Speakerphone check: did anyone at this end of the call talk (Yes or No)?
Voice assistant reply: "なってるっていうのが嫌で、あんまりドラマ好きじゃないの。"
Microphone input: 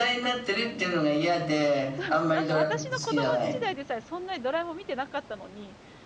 Yes